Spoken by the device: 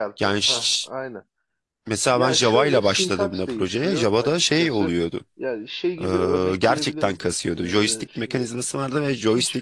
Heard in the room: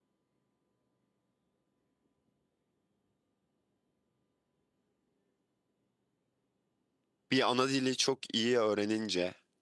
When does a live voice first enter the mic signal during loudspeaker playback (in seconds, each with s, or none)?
7.3 s